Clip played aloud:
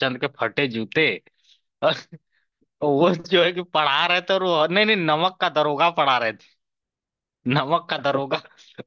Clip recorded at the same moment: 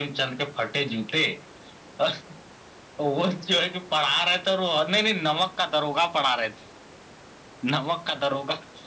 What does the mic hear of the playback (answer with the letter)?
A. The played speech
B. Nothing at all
A